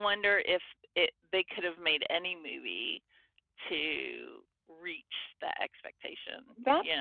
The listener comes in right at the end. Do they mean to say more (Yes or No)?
Yes